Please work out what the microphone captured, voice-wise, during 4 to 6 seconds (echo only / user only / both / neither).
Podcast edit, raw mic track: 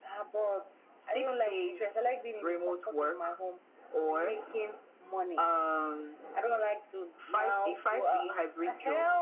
echo only